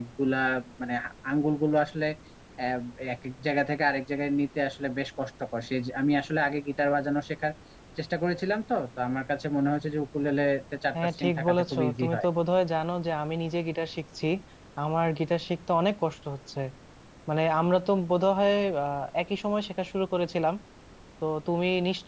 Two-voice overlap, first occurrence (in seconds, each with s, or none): 10.9 s